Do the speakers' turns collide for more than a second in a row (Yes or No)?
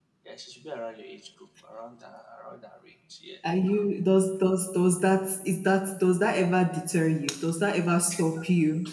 No